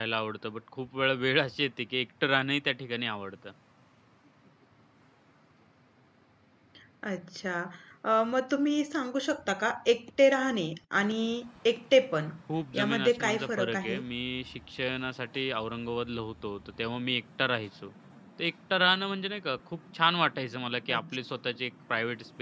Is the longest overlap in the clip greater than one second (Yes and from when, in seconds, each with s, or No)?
Yes, from 12.7 s